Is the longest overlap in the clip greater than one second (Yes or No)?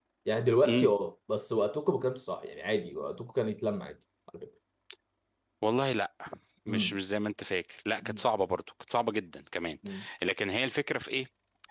No